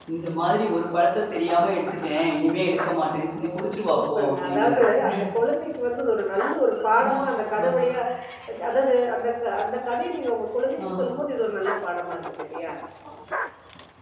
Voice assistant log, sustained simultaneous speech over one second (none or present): present